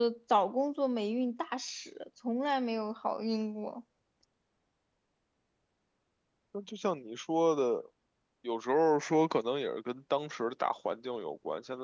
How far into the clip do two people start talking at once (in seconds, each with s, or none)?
none